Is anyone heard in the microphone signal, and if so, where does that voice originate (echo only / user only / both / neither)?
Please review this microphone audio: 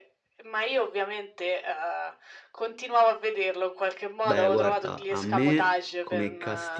both